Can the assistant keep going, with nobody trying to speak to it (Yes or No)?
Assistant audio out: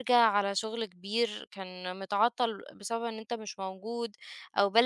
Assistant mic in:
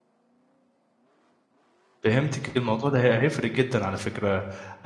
No